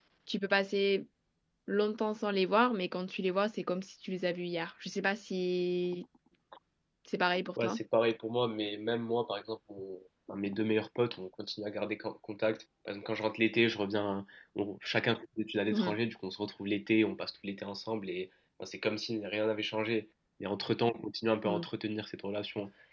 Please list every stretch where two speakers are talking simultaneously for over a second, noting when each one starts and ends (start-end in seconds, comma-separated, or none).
none